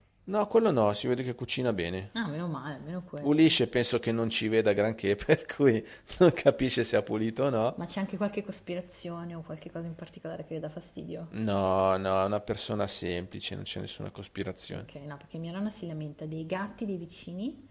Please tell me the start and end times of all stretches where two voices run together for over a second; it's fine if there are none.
none

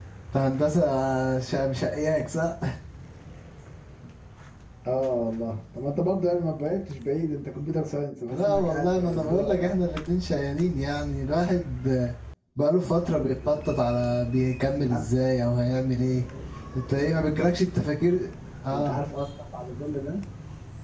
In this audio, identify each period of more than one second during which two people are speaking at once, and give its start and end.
8.3-9.8

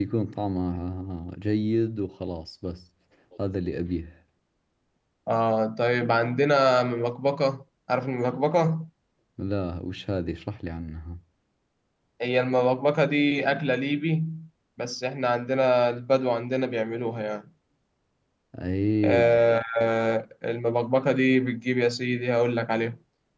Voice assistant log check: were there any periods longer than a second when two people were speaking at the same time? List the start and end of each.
none

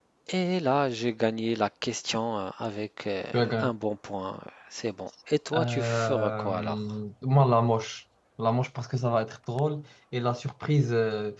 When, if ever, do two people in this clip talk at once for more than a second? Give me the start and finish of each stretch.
5.5-6.8

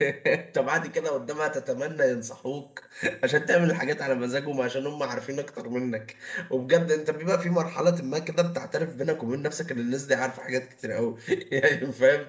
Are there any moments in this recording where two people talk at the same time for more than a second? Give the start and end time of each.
none

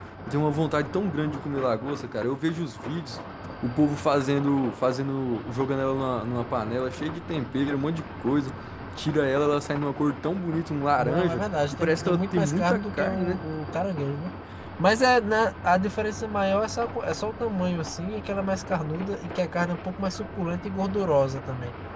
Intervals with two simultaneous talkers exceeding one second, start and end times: 11.0-13.4

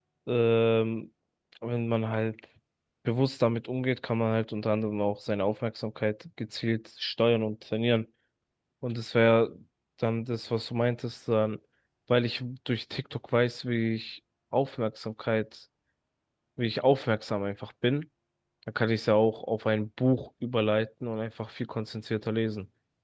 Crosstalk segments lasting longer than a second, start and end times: none

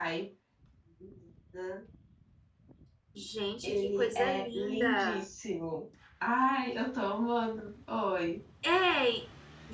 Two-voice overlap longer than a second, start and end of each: 3.6-5.2

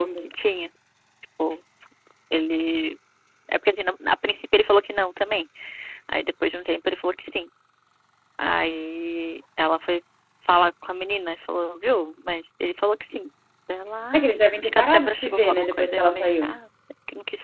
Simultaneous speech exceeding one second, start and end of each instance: 14.1-16.5

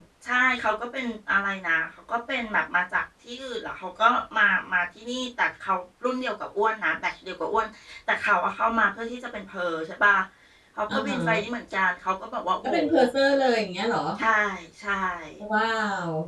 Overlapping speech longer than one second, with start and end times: none

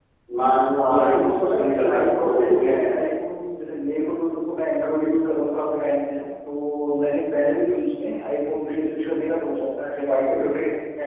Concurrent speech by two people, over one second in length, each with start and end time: 0.7-2.9

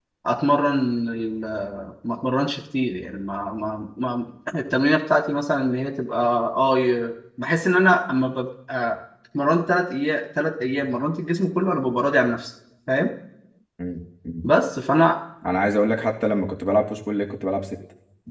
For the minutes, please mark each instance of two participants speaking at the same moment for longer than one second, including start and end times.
none

